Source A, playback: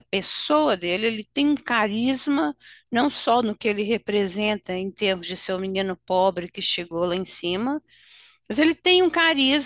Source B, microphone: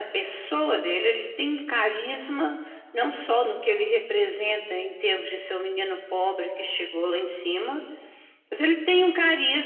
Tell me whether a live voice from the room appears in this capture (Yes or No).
No